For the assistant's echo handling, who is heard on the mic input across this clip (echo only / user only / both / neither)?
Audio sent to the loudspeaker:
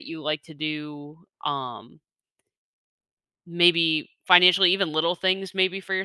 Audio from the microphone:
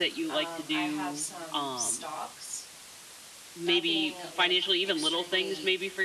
both